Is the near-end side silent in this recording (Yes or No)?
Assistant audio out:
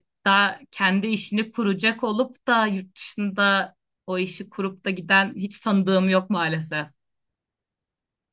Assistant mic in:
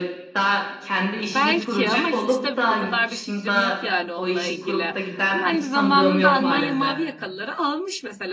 No